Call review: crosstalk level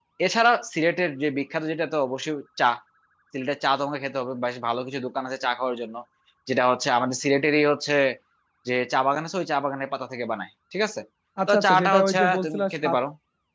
present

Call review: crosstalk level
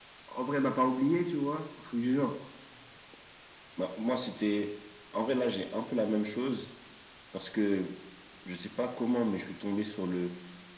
none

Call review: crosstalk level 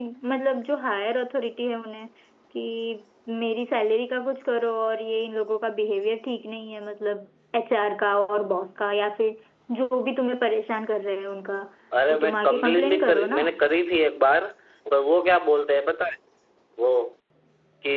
present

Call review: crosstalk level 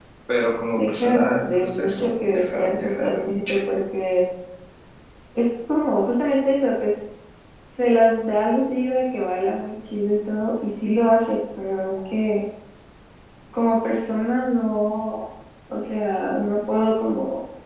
present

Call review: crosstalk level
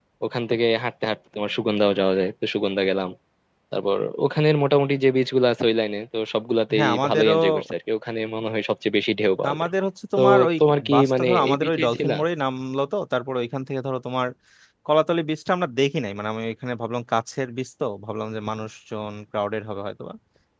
present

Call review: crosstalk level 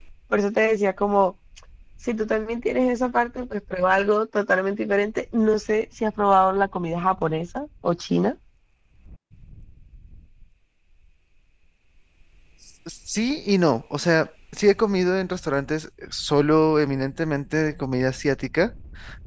none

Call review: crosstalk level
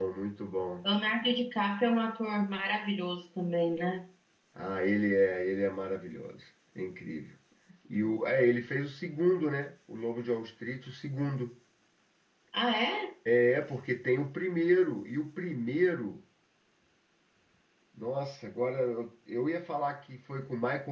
none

